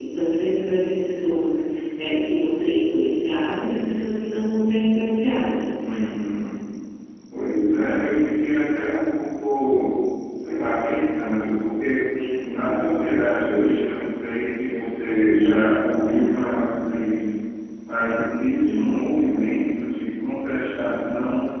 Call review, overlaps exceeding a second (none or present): none